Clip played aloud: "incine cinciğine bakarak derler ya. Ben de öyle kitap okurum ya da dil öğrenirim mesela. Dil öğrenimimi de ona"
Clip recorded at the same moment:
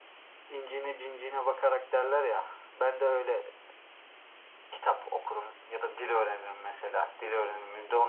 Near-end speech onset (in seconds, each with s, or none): none